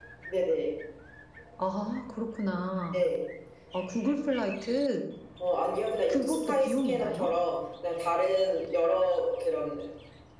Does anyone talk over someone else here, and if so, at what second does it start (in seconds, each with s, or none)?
6.1 s